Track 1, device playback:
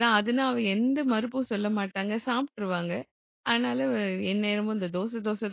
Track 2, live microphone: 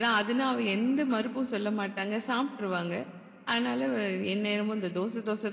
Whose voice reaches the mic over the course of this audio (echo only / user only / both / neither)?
echo only